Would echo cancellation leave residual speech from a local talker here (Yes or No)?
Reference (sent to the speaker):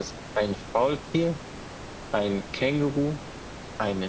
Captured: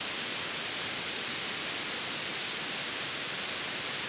No